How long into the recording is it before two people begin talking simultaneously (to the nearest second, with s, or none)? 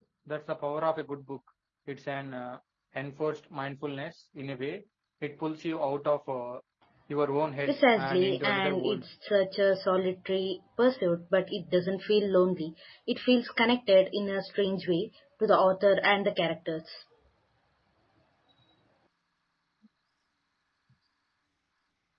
8 s